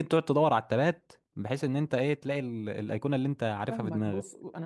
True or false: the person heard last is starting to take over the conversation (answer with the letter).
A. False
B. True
B